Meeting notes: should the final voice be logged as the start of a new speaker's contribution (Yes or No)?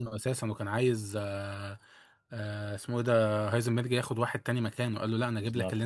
No